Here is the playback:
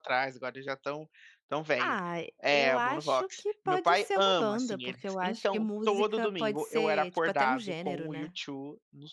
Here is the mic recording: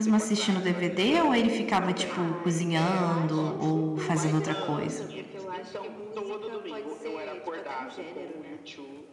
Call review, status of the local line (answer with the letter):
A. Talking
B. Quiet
A